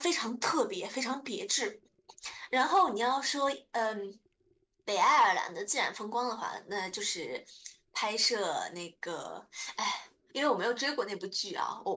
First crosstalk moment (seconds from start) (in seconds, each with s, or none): none